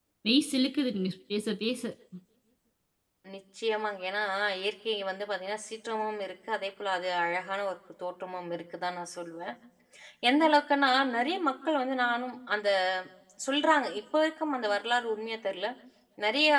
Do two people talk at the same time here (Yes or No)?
No